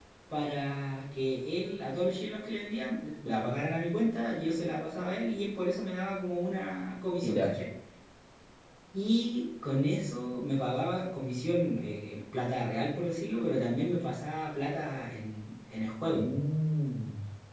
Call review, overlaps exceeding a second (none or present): none